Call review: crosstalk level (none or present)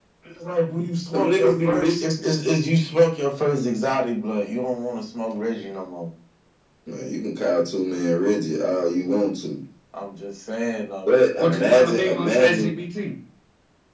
present